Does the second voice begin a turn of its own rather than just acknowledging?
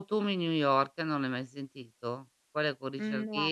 No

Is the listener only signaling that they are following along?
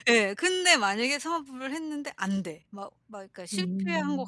Yes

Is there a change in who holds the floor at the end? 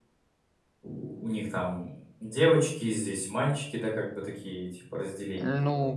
Yes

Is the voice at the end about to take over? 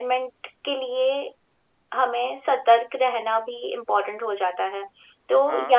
No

